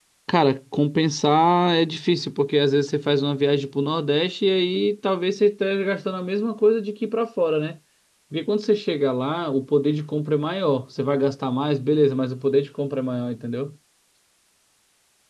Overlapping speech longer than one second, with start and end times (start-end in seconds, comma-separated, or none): none